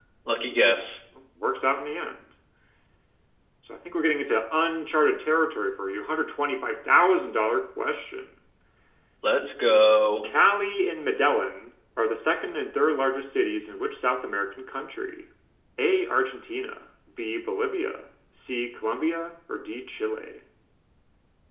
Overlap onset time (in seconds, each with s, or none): none